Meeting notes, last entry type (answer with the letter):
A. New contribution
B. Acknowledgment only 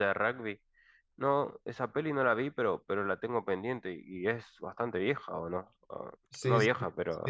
A